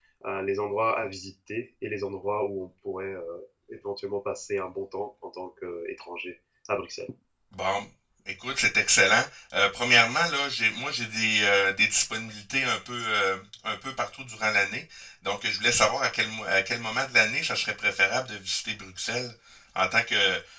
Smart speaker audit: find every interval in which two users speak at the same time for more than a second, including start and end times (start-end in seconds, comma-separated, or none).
none